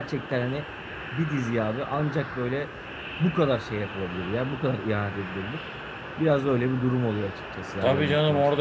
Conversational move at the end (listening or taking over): taking over